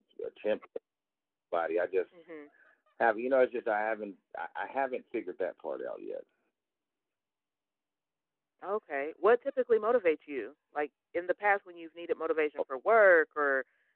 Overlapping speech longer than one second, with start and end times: none

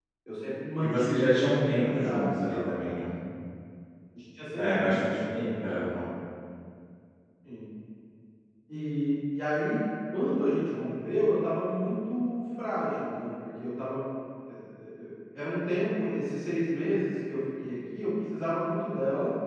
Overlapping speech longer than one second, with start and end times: 0.8-2.7, 4.6-5.9

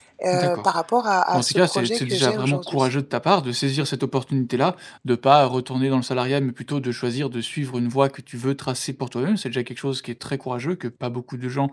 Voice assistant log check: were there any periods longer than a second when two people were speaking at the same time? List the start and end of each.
1.4-2.9

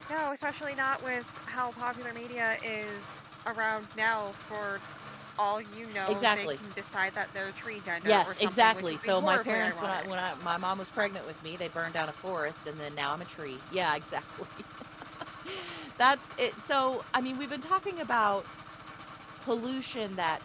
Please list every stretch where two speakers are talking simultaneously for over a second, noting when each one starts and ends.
8.0-10.1

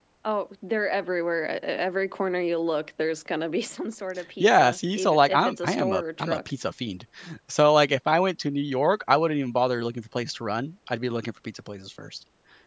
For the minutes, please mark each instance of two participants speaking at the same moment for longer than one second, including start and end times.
4.4-6.4

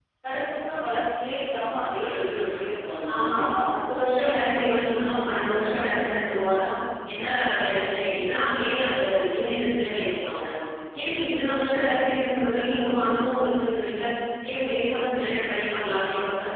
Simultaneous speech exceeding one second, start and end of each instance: none

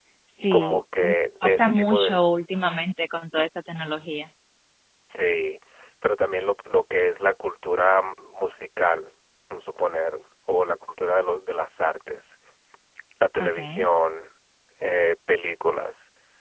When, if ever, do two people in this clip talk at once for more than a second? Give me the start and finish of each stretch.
0.5-2.2

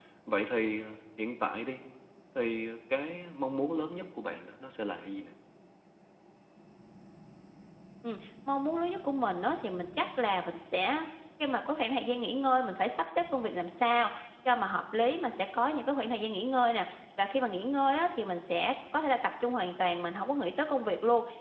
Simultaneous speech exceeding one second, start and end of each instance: none

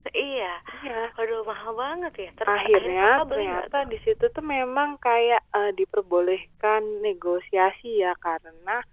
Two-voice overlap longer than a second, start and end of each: 2.5-3.9

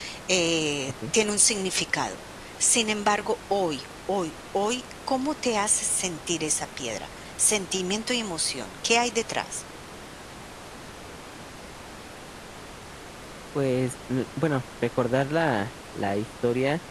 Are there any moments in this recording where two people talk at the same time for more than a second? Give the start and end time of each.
none

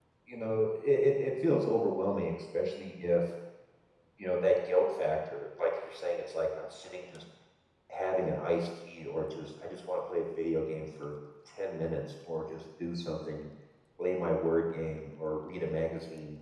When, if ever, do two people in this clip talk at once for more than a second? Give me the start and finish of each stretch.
none

